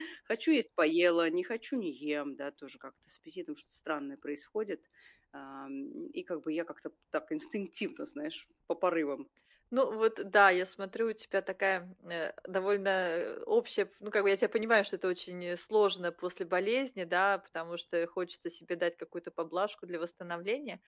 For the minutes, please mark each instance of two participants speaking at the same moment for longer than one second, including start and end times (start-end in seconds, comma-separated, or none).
none